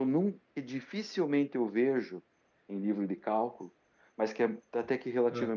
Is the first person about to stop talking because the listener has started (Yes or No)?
No